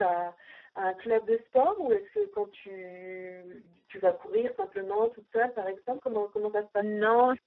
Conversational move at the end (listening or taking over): taking over